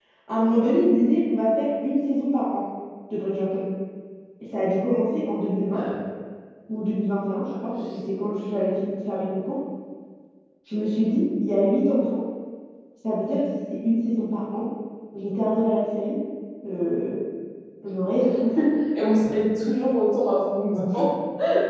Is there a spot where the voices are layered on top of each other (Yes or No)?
No